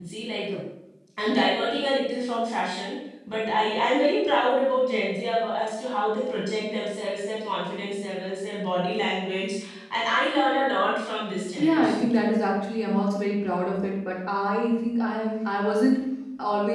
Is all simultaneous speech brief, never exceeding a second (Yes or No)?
Yes